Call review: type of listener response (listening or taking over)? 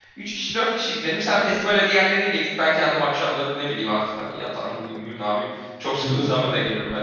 taking over